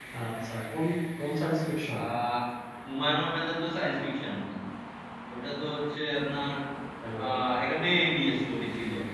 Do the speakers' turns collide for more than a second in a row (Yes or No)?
No